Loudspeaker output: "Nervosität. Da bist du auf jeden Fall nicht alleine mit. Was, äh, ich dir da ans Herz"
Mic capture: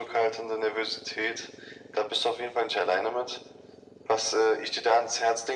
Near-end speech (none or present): none